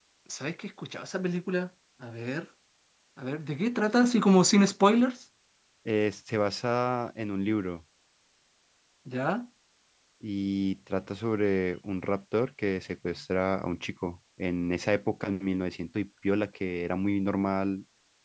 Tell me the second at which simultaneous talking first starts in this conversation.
none

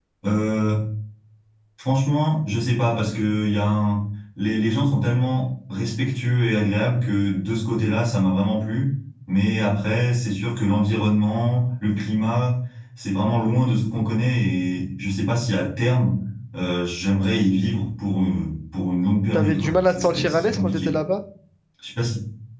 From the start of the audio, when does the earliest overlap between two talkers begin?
19.3 s

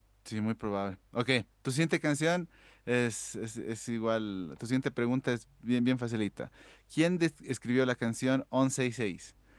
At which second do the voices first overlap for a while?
none

